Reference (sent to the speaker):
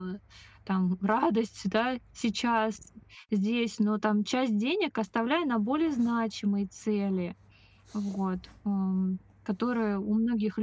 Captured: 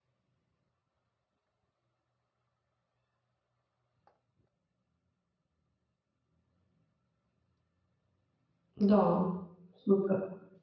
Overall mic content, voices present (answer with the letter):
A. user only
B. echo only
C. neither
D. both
A